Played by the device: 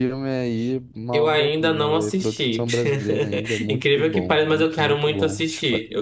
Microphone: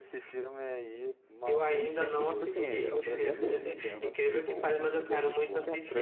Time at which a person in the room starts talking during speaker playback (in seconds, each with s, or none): 1.8 s